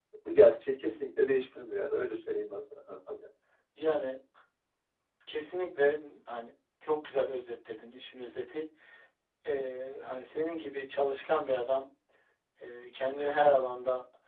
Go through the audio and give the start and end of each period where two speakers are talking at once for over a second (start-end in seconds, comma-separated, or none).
none